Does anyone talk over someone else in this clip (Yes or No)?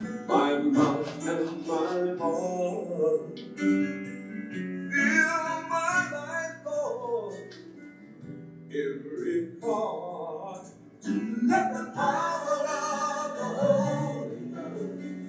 No